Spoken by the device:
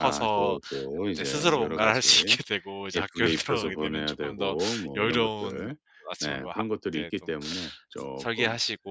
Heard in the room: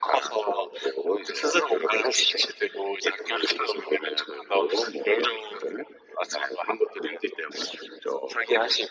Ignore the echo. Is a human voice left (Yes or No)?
No